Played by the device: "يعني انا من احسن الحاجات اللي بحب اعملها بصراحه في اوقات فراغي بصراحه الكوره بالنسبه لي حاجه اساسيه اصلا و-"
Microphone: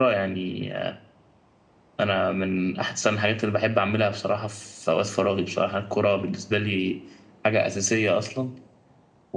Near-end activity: none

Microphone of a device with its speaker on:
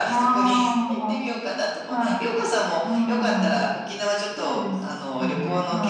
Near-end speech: none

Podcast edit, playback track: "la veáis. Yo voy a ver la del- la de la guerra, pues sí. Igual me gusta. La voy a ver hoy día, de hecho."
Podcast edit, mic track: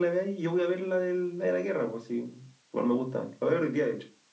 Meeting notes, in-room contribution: none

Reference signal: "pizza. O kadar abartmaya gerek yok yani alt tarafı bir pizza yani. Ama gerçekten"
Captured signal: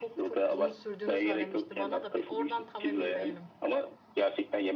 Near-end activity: present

